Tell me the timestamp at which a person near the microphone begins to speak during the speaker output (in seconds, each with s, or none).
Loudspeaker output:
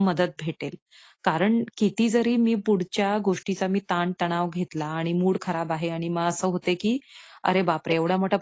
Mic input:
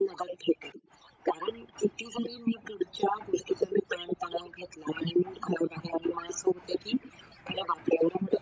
none